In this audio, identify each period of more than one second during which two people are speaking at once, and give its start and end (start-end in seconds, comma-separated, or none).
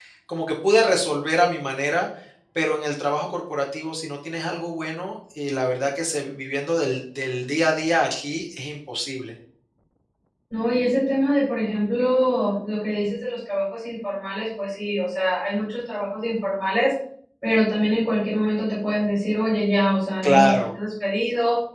none